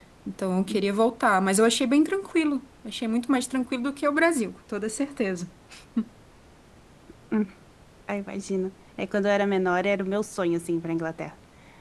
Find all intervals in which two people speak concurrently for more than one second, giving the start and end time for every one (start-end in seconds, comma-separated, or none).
none